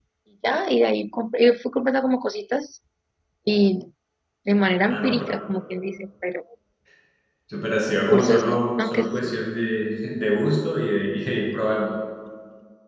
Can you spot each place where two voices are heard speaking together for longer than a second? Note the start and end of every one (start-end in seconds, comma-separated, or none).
8.1-9.3